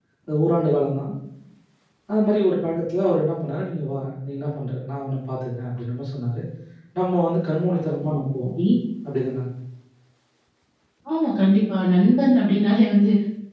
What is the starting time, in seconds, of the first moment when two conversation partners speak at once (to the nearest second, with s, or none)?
none